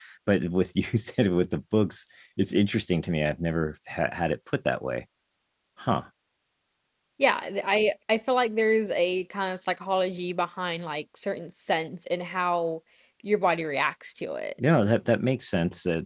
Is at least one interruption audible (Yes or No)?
No